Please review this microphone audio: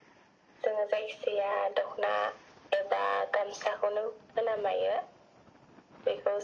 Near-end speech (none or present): none